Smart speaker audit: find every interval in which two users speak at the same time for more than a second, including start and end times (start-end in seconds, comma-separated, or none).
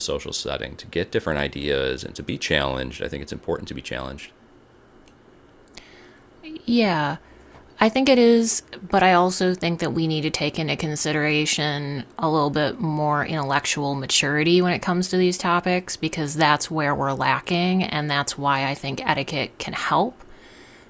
none